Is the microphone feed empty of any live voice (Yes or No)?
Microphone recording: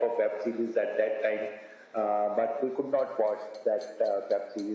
Yes